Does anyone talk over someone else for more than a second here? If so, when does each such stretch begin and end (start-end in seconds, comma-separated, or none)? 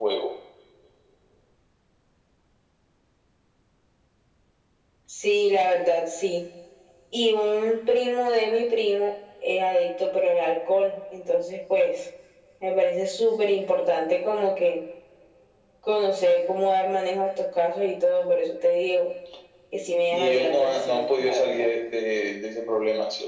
20.1-21.7